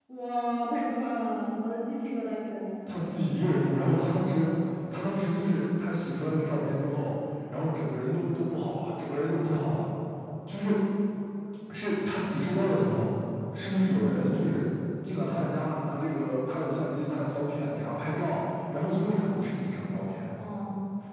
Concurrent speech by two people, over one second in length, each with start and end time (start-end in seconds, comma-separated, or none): none